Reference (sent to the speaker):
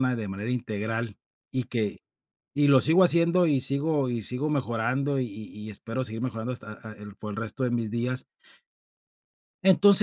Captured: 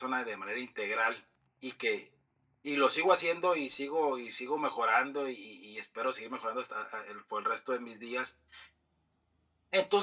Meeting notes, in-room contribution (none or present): none